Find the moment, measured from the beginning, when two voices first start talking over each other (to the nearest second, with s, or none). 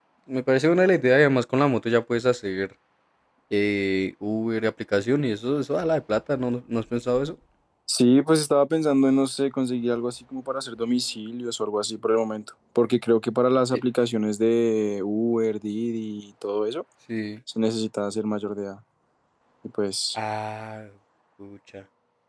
none